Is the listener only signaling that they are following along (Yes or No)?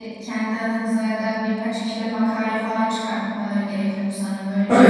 No